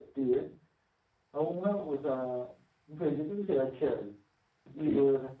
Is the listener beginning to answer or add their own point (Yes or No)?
No